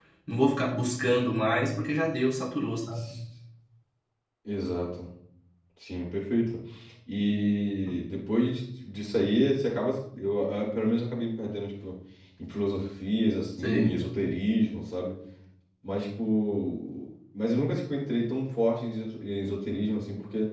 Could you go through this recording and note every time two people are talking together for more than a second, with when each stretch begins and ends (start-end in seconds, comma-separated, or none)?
none